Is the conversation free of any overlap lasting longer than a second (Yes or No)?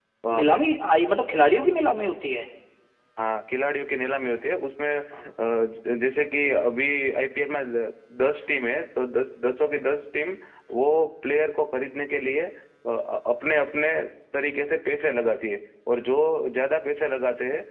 Yes